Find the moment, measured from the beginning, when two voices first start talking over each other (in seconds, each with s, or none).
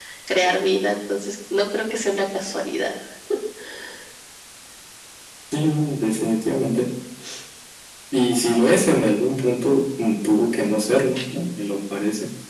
none